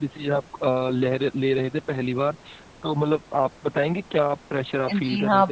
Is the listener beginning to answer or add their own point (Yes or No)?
Yes